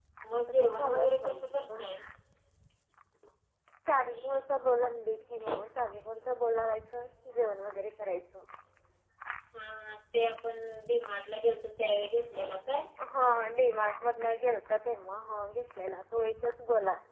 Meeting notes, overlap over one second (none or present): present